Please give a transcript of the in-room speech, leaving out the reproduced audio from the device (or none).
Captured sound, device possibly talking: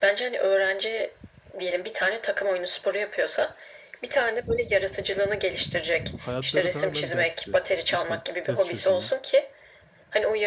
hayatları tamamen dersti. İşte test çözeyim,